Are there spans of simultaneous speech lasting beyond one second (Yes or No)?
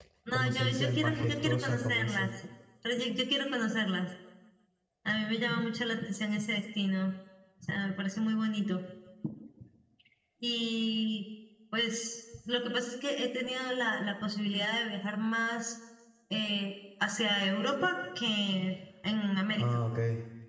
Yes